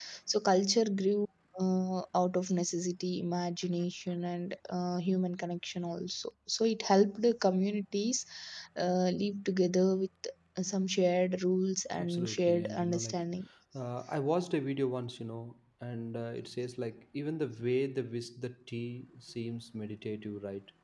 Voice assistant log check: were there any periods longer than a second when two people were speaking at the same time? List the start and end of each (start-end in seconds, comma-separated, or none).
12.0-13.2